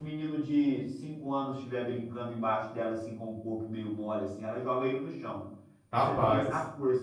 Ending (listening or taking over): listening